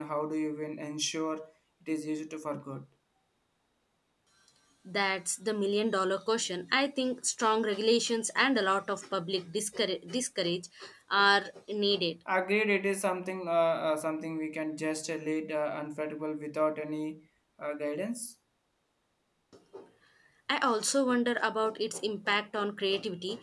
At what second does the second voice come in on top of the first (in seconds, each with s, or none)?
none